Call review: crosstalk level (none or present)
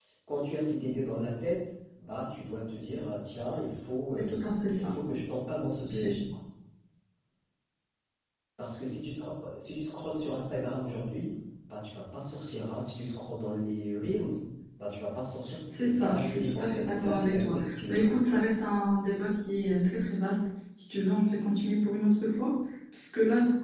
present